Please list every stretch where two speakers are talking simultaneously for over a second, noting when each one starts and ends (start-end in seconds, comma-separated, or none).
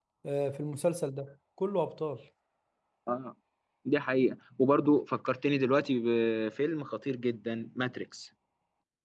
none